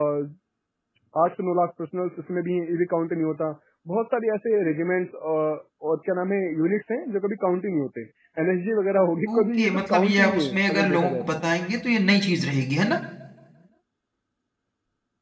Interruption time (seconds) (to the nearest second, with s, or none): 9 s